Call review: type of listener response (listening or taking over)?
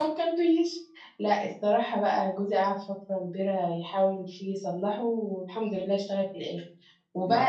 listening